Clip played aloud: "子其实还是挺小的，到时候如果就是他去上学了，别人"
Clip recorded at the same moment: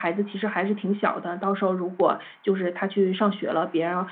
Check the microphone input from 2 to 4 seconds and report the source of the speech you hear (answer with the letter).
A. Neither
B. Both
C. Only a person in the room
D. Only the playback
D